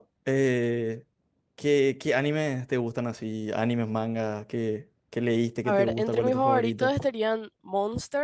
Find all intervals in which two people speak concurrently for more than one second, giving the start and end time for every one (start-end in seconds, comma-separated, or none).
5.7-6.9